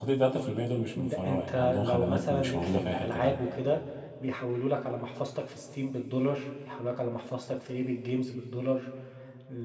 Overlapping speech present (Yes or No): Yes